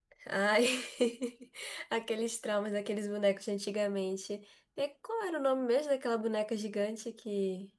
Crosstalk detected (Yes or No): No